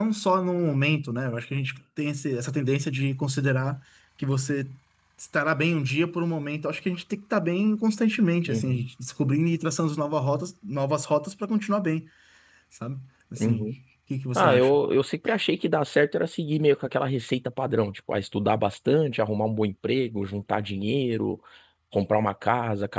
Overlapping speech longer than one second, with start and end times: none

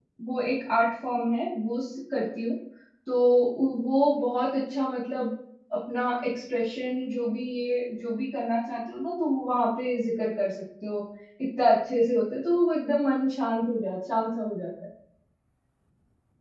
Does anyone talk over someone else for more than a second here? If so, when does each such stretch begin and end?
none

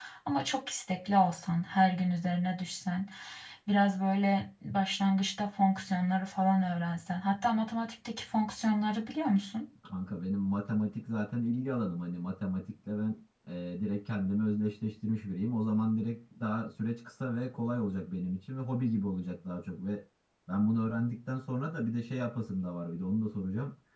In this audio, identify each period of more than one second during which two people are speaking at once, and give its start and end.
none

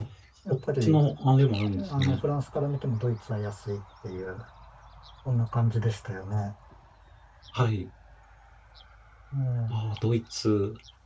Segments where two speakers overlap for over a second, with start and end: none

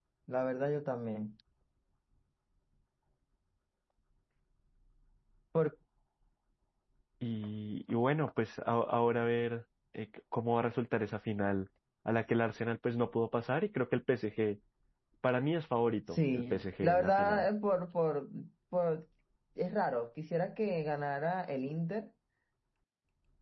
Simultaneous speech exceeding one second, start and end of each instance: 16.1-17.5

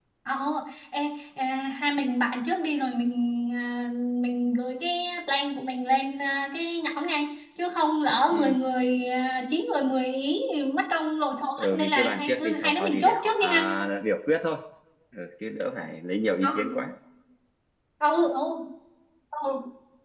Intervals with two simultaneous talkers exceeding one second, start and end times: 11.6-13.6

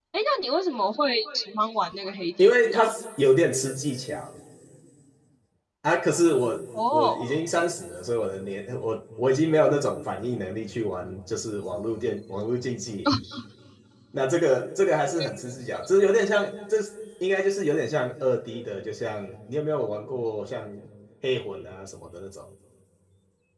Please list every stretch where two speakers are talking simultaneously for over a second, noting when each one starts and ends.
none

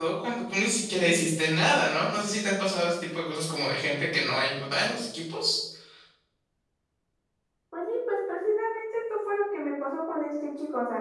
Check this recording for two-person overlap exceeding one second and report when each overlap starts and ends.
none

